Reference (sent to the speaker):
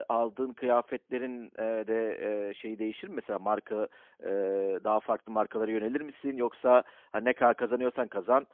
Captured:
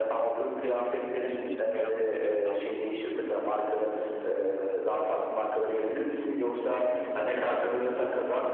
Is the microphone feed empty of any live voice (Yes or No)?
No